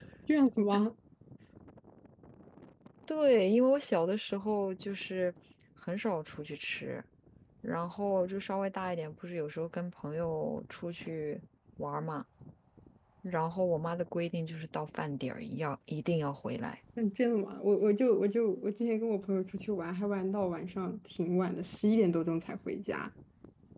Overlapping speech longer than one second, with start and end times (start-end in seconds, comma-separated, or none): none